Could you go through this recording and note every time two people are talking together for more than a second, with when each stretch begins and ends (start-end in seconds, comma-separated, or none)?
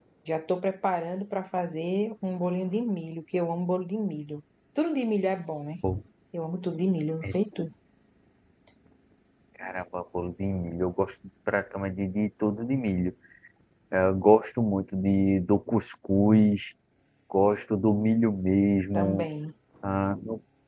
none